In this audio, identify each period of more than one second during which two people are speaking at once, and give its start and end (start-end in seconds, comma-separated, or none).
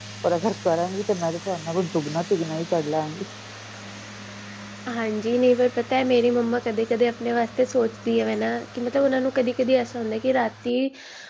none